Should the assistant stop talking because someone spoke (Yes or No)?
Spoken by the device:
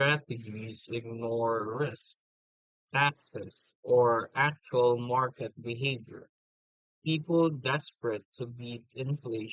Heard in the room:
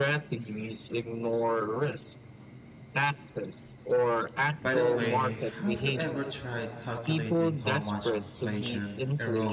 Yes